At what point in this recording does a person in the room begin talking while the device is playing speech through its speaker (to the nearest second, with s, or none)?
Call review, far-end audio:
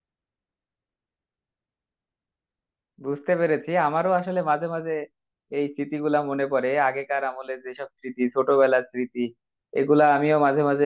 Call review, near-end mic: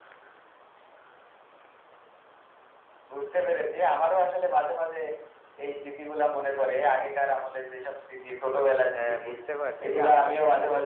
9 s